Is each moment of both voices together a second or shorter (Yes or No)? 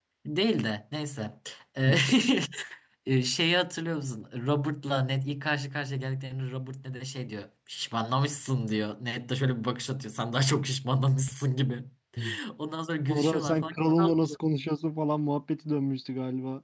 No